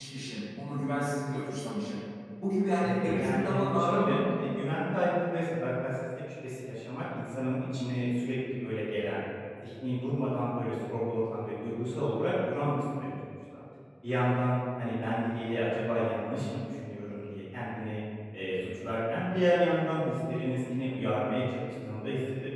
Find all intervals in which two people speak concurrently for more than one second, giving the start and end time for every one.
2.8-4.2

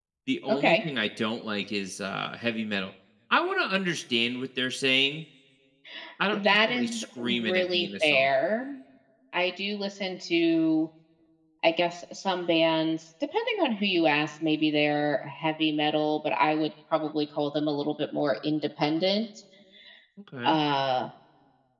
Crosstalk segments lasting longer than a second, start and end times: 6.3-8.3

